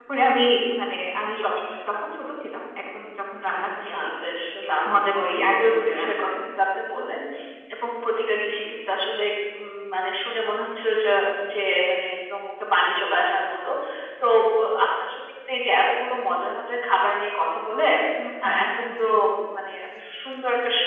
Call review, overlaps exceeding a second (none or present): present